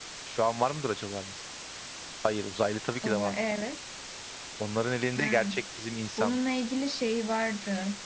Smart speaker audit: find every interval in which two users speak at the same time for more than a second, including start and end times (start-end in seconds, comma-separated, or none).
none